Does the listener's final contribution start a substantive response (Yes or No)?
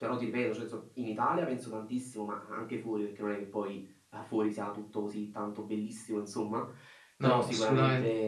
No